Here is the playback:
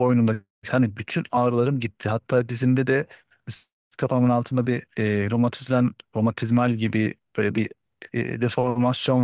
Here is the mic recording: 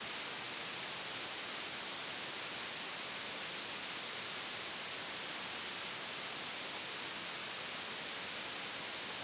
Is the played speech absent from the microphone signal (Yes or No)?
Yes